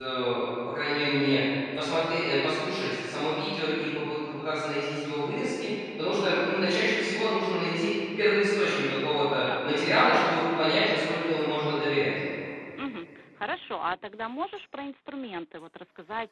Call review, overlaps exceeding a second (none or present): none